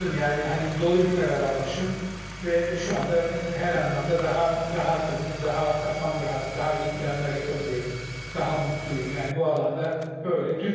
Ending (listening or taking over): listening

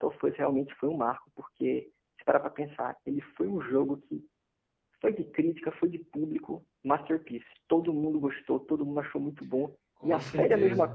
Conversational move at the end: listening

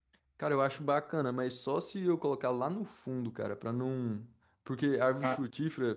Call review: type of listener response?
listening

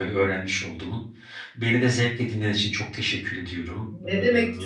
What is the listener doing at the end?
taking over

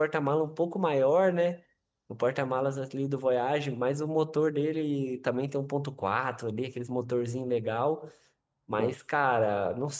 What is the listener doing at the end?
listening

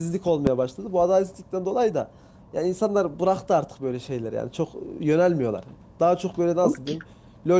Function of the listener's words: listening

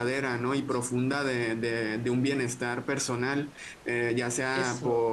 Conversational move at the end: listening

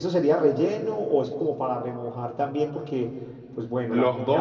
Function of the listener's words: listening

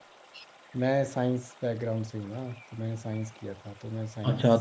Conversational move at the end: taking over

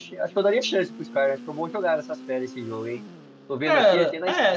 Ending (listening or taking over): taking over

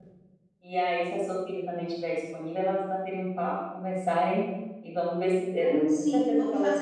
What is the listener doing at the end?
taking over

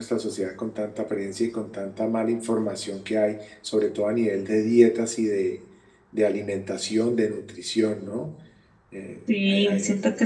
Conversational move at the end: taking over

